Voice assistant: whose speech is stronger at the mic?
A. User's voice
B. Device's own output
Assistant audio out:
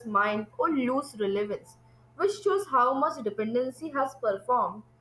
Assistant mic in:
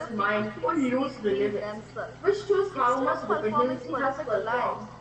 B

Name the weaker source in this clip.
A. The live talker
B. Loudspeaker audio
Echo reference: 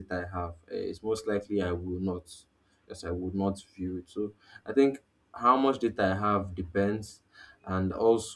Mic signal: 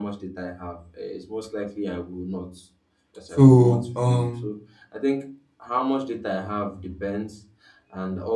B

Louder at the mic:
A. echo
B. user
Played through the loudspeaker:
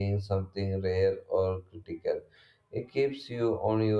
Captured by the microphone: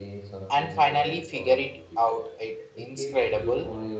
B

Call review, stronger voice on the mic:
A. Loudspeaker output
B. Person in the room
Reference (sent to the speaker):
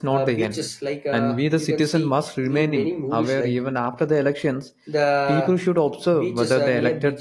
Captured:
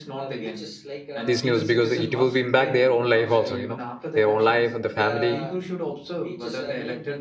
B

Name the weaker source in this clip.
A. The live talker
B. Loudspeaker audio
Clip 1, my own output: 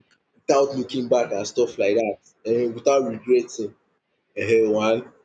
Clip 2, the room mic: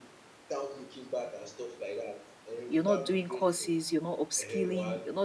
B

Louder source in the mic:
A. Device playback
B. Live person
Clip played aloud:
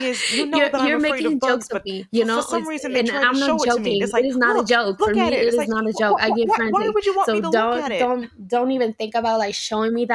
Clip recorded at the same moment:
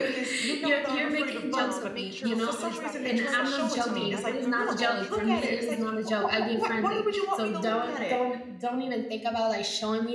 A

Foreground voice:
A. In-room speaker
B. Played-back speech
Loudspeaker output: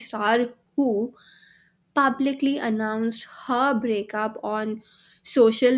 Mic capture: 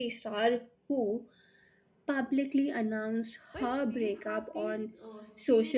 B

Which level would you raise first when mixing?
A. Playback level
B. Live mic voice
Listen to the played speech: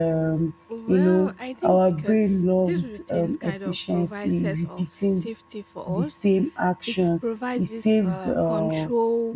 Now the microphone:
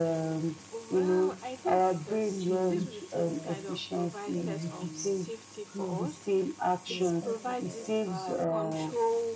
B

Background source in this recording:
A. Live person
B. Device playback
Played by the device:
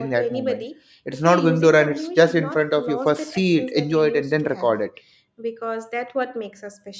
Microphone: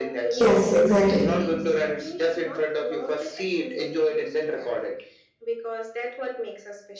B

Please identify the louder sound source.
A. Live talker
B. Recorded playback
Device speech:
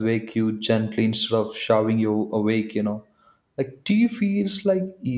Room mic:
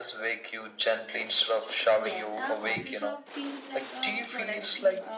B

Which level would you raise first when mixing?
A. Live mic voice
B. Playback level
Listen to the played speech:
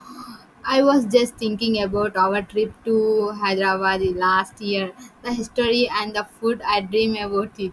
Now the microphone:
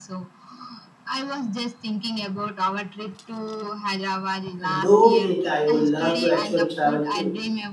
B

